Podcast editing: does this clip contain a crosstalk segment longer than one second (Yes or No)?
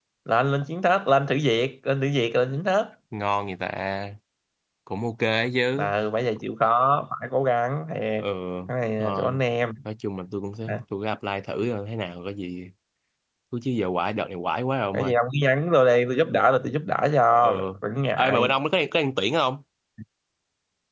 No